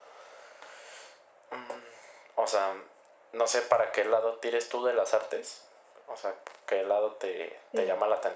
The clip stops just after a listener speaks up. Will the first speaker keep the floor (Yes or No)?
Yes